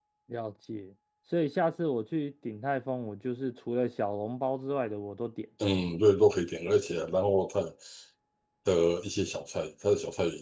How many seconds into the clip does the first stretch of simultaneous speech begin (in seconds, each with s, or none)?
none